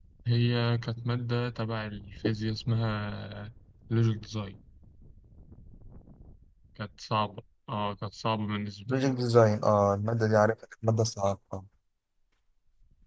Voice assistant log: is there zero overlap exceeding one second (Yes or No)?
Yes